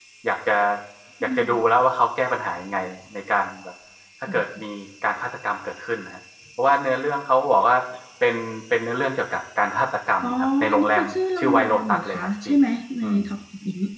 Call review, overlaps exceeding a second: present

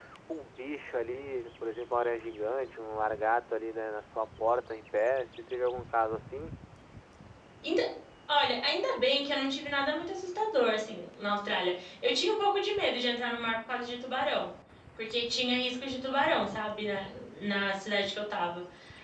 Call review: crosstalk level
none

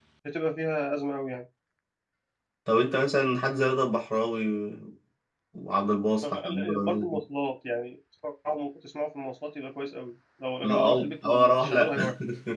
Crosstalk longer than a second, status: present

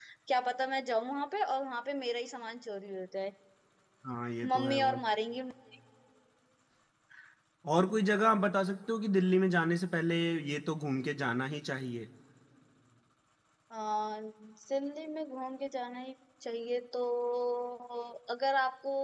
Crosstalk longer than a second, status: none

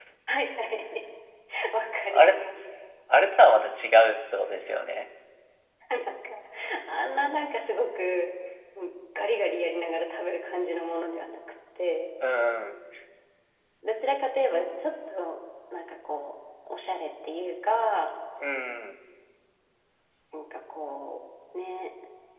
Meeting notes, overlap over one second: none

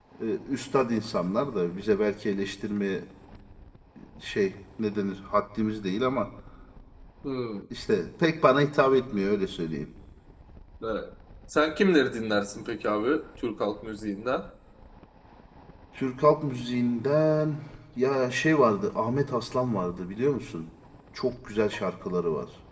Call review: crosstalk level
none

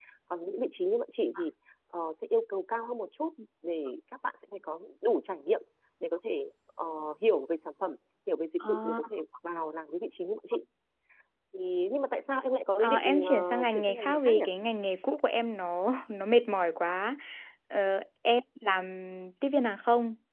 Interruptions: present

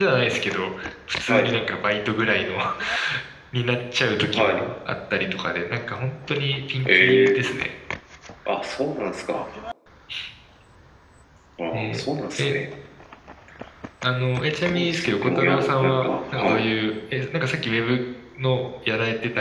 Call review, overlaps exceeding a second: present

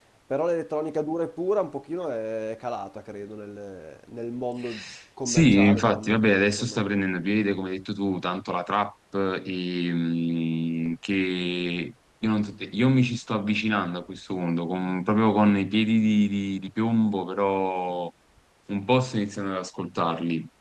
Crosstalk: present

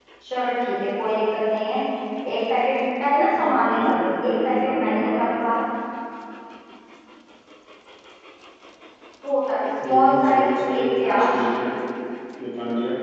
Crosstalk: present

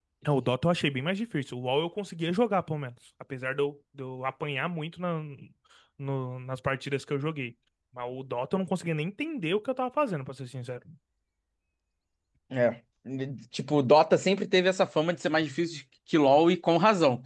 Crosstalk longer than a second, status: none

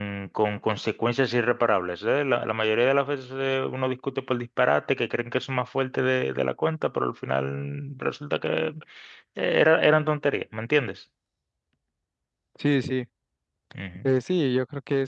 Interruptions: none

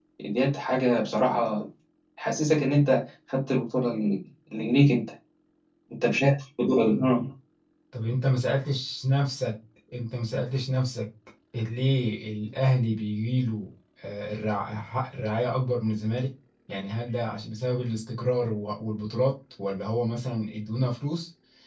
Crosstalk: none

